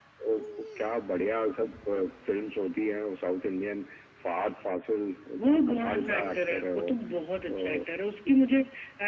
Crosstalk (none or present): present